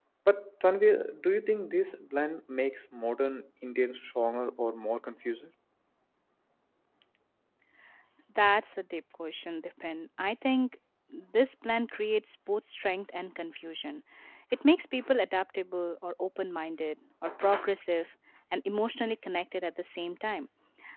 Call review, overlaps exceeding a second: none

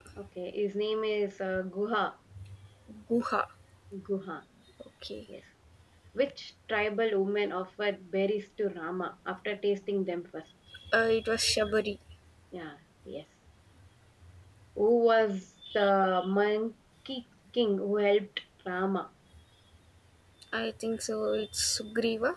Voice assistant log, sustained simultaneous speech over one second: none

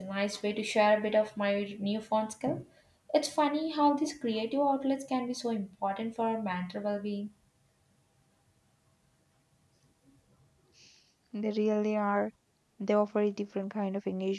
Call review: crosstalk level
none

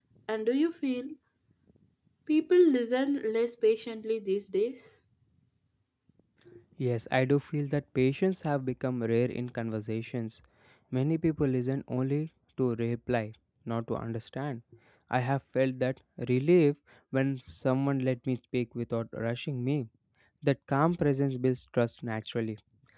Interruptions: none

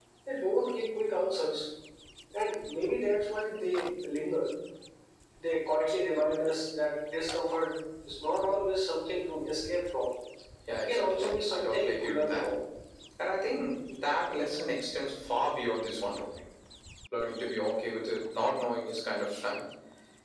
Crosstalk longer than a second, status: present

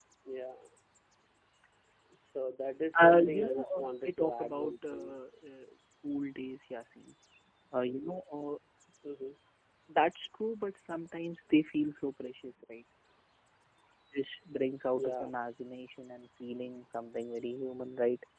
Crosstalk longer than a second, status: present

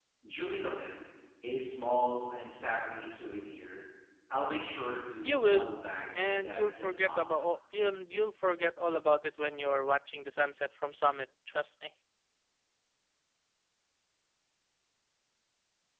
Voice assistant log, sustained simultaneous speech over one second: present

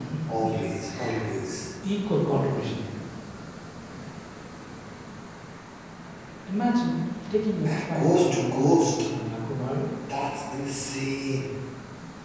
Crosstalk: present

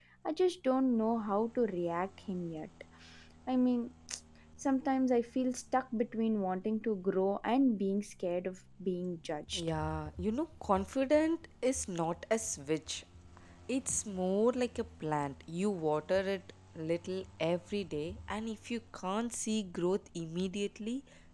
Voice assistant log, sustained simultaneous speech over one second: none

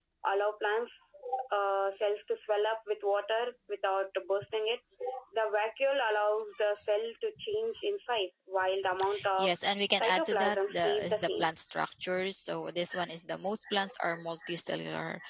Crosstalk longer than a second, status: present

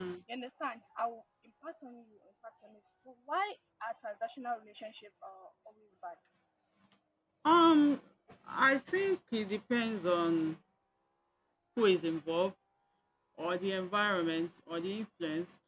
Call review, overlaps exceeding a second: none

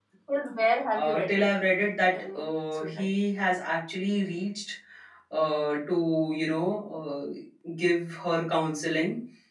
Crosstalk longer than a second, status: none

